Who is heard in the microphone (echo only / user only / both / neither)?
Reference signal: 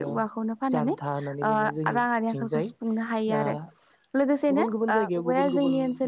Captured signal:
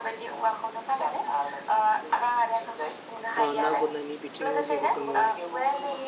both